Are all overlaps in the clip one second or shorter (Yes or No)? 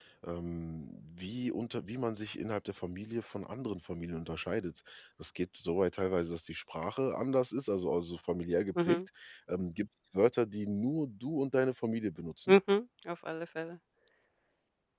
Yes